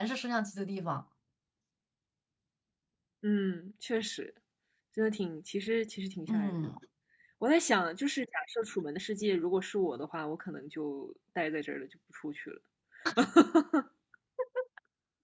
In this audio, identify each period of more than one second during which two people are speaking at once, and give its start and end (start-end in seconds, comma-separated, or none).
none